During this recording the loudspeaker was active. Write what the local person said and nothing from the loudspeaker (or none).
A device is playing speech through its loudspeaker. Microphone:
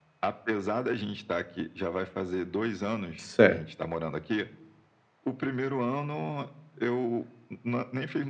Certo.